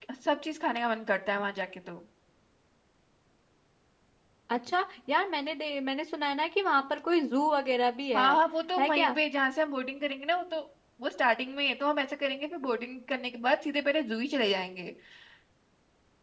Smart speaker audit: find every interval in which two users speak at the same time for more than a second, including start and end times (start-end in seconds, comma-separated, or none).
none